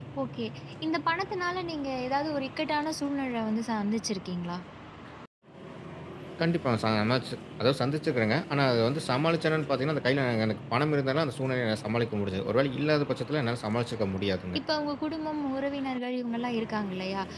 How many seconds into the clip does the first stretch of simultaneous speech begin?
none

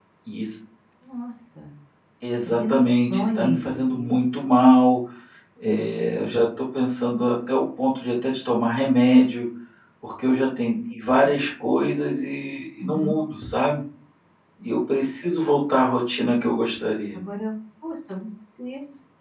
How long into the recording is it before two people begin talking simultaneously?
2.6 s

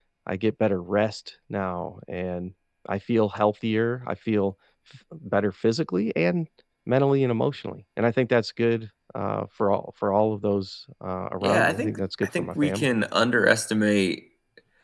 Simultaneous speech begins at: 11.4 s

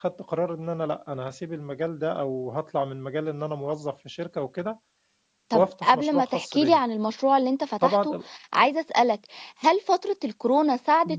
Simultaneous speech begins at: 5.5 s

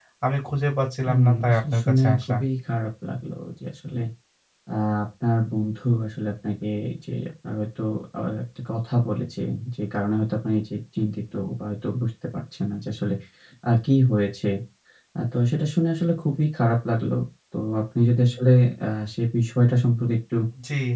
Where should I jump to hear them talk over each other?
1.1 s

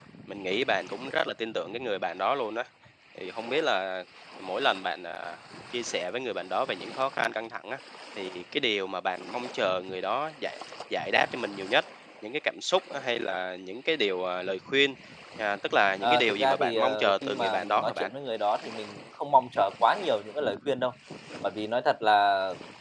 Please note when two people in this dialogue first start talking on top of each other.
16.0 s

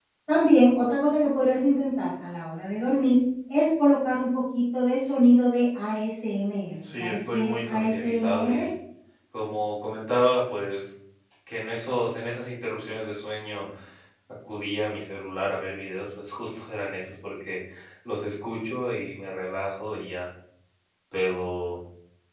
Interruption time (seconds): 6.8 s

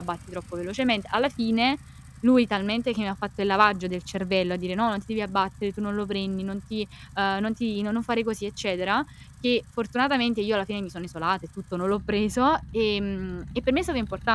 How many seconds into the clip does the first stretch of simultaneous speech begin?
none

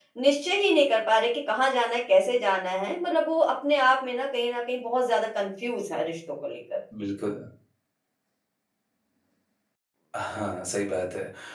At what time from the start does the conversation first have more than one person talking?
none

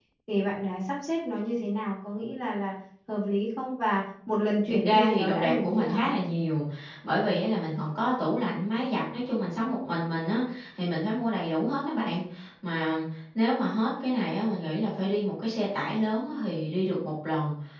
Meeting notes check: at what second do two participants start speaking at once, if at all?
4.8 s

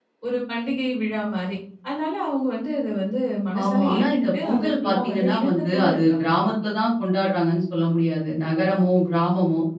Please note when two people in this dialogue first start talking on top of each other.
3.5 s

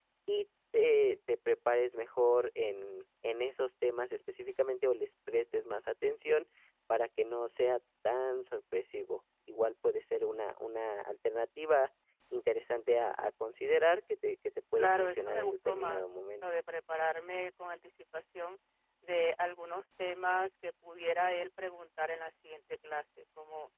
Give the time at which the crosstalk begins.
14.8 s

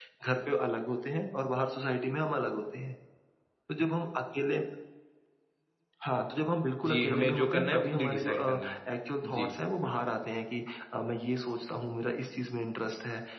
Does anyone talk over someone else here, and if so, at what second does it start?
6.8 s

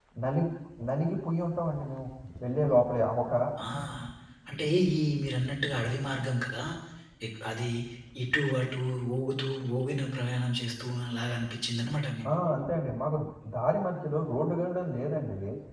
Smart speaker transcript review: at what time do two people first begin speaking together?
none

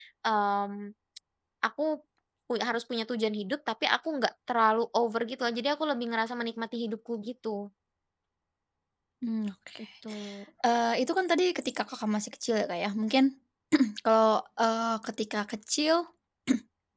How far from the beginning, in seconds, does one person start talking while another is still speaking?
none

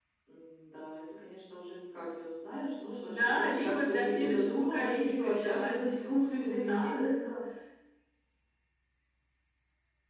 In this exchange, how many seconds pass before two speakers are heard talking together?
3.0 s

